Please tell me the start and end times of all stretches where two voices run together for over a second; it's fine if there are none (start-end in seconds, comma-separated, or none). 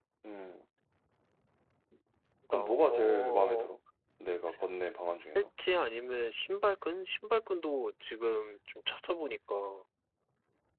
2.5-3.8